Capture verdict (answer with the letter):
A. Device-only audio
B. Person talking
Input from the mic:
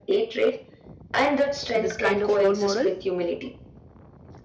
B